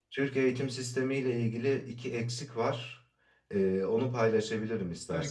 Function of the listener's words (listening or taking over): taking over